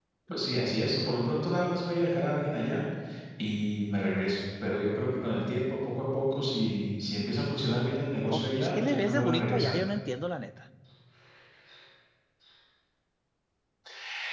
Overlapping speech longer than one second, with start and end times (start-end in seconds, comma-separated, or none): 8.3-9.8